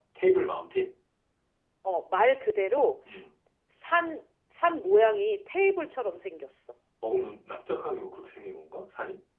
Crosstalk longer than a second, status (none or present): none